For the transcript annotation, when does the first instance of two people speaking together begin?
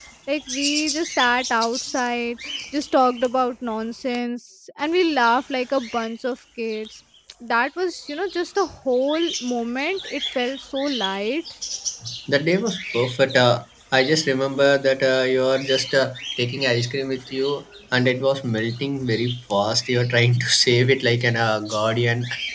none

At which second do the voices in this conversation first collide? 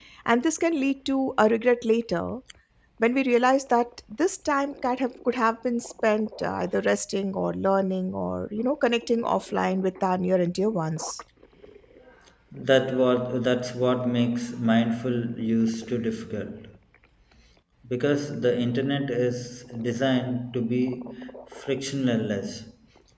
none

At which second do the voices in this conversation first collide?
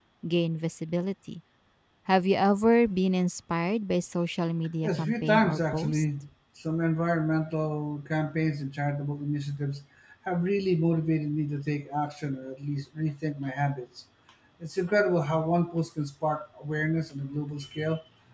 4.8 s

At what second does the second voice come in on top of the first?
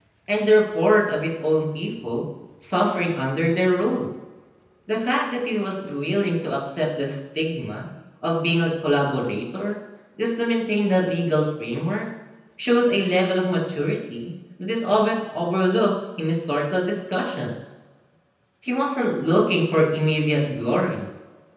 none

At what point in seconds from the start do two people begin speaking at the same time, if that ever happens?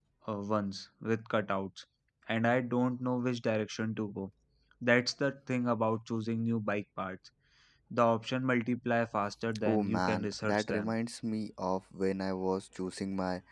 9.6 s

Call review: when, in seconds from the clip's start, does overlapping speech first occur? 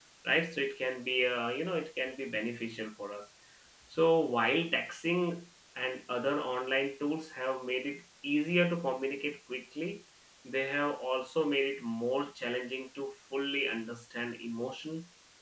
none

